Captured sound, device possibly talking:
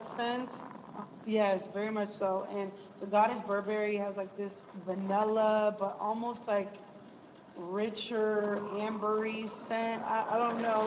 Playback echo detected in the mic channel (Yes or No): Yes